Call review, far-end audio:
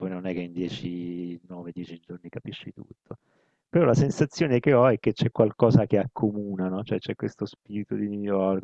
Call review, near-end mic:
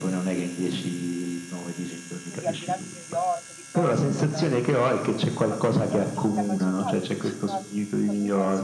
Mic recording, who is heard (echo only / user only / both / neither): both